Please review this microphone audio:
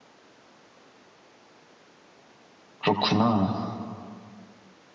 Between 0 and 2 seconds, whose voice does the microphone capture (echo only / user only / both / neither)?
neither